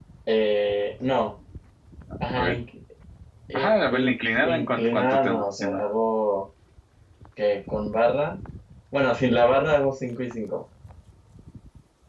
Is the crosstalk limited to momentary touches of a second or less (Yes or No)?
No